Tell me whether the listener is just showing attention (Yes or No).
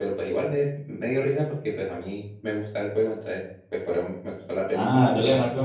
No